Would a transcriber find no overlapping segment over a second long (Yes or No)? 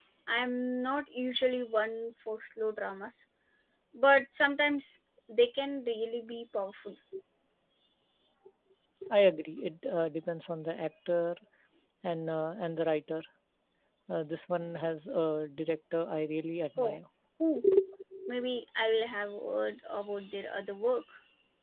Yes